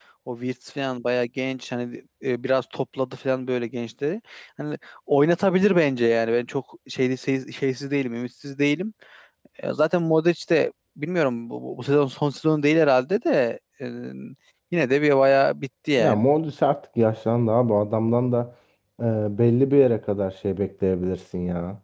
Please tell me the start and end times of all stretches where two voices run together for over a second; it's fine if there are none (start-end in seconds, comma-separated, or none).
none